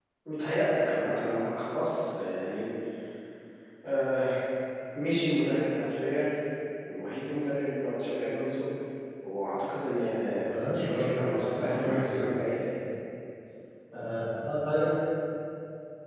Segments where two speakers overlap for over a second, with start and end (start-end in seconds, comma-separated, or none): 10.5-12.3